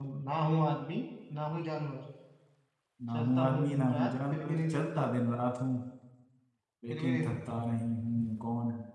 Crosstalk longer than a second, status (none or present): present